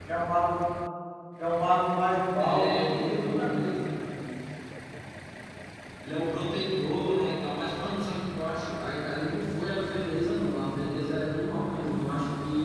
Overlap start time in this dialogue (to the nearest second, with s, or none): 2 s